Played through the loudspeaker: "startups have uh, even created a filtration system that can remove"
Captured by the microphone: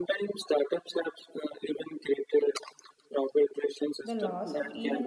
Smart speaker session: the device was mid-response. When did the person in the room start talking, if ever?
4.0 s

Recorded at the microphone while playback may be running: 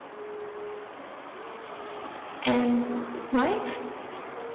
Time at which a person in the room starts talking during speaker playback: 2.4 s

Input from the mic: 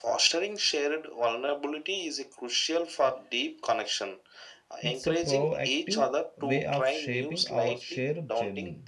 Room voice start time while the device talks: 4.8 s

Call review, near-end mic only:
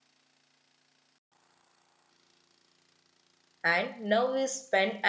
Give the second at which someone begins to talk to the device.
3.6 s

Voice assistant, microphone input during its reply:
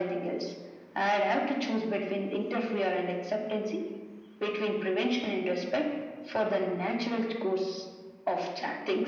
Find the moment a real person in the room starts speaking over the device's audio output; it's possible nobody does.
none

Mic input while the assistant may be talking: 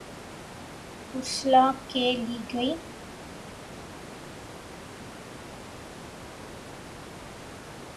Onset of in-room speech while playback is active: 1.2 s

